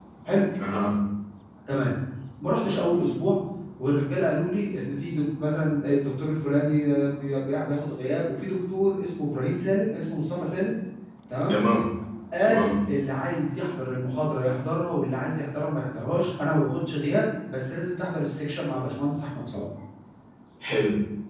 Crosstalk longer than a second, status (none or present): none